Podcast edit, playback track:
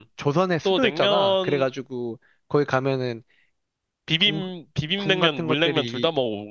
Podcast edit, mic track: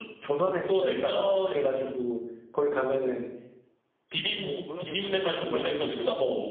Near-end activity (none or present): present